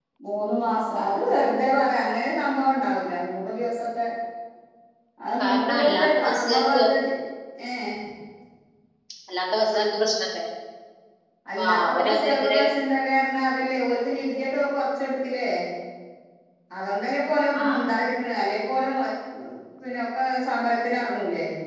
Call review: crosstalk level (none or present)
present